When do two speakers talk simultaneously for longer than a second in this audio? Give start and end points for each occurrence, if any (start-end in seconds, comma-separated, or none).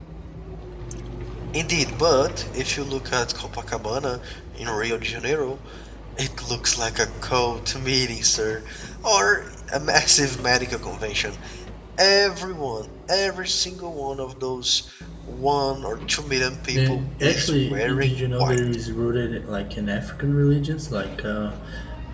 16.7-18.6